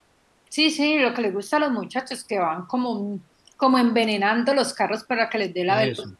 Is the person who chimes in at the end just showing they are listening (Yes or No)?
Yes